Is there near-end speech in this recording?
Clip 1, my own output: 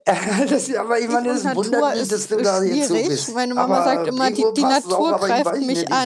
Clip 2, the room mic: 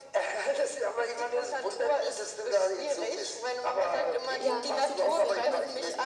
Yes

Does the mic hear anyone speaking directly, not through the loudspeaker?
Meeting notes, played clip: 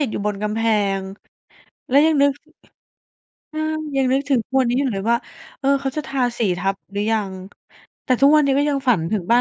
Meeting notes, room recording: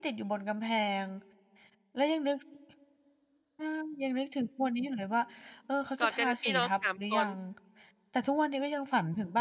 Yes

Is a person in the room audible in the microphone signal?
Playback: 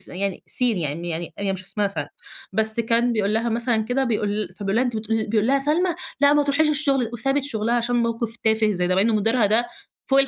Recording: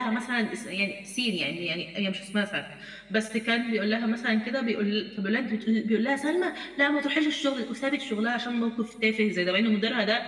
No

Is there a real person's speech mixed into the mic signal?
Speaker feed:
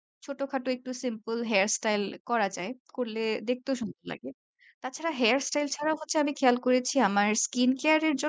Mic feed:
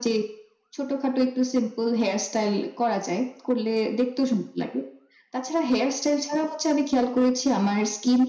No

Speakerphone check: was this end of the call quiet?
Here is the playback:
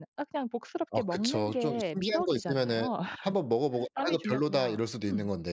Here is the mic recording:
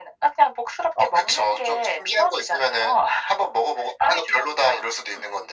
Yes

